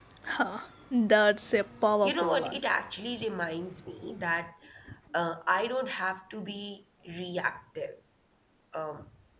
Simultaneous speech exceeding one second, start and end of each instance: none

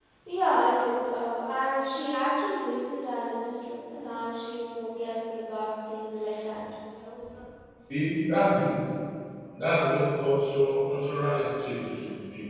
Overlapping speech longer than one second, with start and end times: none

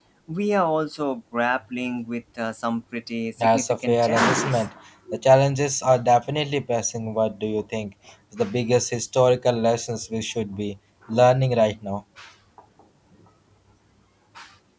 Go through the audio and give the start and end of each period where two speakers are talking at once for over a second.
3.4-4.7

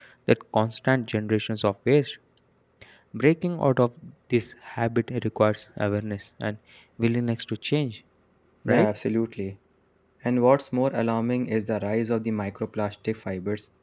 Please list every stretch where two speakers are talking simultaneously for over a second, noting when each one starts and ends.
none

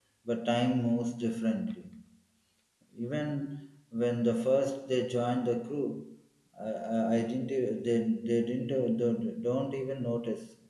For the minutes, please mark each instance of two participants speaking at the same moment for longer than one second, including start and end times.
none

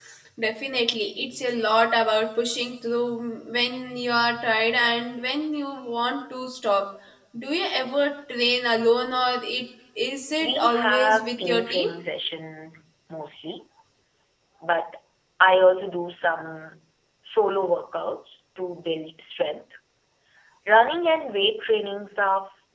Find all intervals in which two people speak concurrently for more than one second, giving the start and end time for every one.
10.4-11.9

